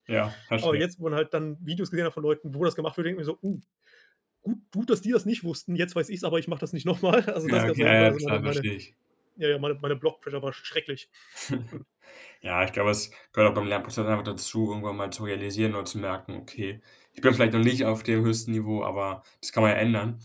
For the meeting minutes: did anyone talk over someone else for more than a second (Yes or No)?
Yes